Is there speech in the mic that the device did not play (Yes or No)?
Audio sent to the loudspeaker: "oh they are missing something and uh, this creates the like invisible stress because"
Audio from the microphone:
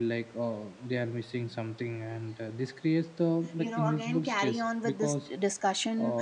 Yes